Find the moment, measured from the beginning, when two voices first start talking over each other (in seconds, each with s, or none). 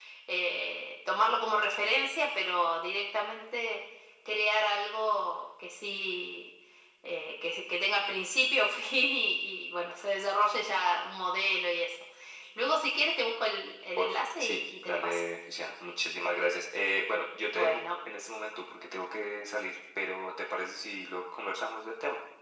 14.0 s